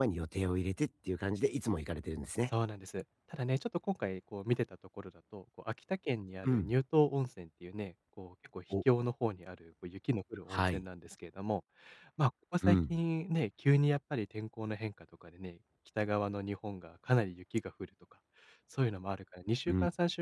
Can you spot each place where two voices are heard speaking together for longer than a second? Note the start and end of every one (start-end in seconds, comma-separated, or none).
none